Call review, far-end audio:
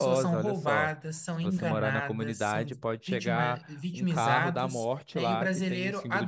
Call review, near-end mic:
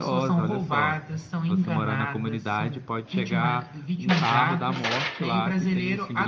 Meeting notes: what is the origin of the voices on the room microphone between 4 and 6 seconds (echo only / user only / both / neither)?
echo only